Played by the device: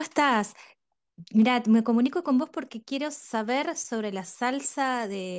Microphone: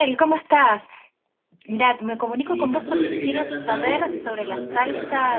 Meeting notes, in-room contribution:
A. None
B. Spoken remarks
B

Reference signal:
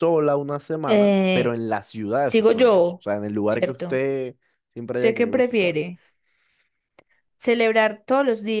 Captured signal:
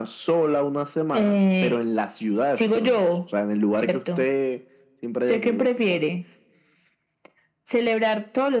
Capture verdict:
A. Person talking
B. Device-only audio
B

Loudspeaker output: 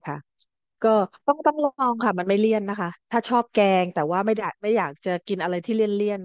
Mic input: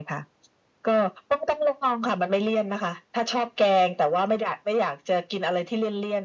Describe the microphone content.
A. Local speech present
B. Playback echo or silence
B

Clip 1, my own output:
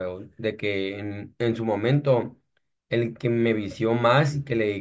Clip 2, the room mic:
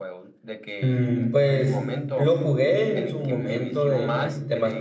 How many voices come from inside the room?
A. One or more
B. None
A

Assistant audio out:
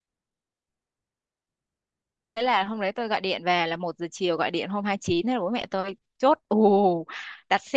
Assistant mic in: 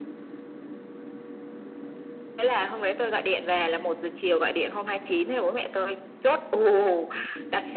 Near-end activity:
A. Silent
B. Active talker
A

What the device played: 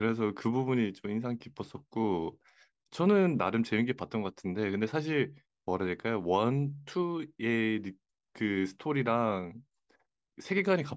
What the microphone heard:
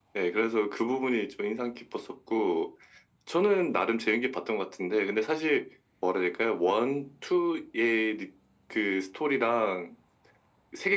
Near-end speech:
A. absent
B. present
A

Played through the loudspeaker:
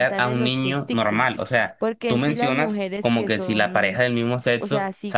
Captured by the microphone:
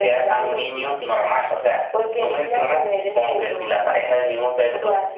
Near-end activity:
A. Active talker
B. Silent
B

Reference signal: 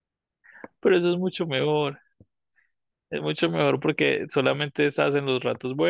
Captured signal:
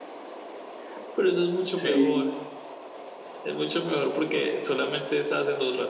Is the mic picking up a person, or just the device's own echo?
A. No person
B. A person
B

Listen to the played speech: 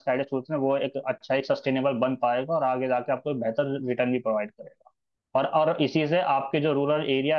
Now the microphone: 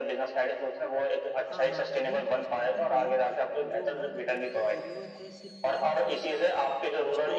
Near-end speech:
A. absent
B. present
B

